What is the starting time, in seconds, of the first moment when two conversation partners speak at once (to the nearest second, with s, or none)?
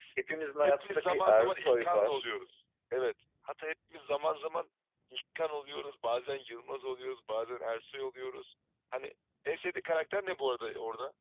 1 s